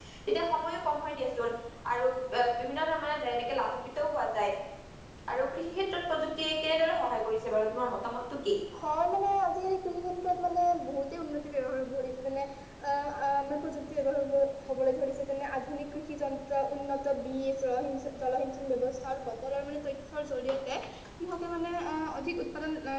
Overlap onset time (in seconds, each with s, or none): none